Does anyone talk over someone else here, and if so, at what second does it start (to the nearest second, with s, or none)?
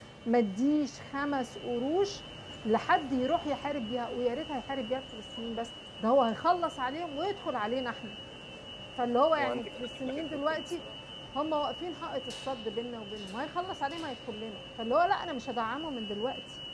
9 s